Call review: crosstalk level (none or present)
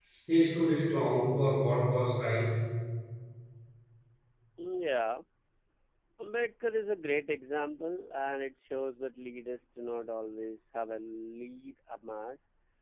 none